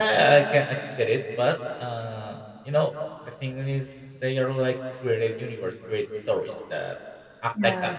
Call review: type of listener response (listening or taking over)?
listening